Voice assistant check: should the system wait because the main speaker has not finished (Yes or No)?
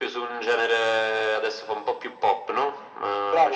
No